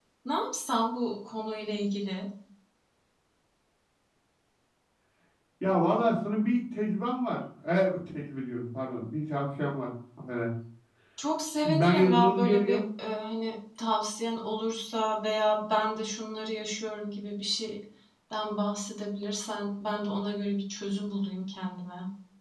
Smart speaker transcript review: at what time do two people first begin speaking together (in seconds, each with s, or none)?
11.6 s